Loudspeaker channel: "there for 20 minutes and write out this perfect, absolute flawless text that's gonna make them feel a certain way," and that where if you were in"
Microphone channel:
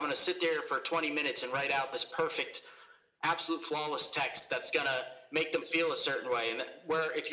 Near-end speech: none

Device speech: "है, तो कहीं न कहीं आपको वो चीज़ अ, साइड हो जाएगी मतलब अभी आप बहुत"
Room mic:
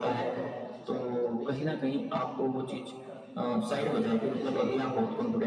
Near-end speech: present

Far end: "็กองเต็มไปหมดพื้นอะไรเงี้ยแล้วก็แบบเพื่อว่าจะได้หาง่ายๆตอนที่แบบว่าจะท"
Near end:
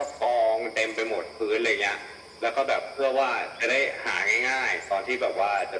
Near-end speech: none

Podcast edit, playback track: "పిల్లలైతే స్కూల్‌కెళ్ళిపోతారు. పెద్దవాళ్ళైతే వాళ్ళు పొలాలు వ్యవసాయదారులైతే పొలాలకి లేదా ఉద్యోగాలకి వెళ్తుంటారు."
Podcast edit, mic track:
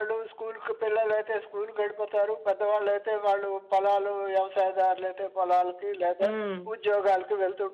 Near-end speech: present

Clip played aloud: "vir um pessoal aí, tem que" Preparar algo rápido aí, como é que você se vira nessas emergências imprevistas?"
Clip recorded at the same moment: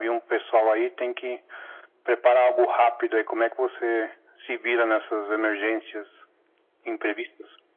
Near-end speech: none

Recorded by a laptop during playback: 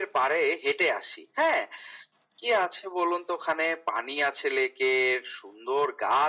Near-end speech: none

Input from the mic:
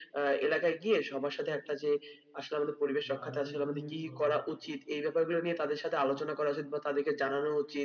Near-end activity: present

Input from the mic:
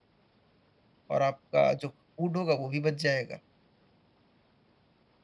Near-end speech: present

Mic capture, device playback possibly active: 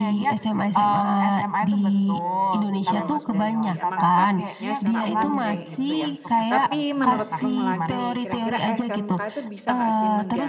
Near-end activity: present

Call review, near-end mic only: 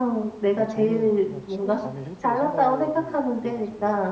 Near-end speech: present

